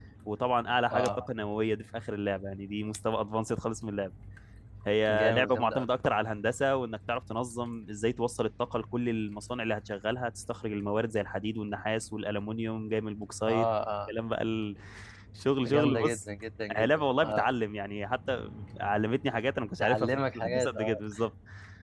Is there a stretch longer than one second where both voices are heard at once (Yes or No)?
Yes